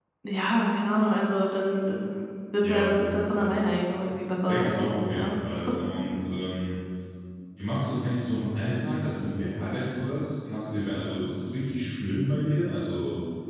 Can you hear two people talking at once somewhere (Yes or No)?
Yes